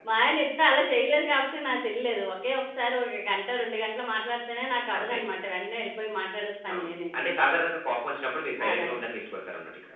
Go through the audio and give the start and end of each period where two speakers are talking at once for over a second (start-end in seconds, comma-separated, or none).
none